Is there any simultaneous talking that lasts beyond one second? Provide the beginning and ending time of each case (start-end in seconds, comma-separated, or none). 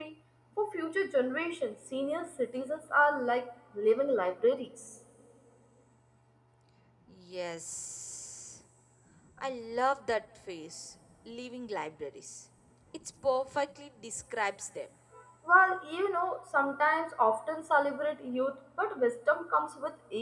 none